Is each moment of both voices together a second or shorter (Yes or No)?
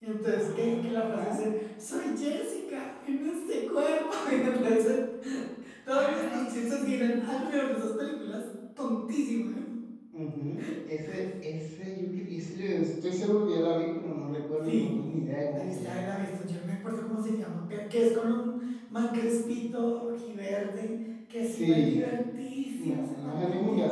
No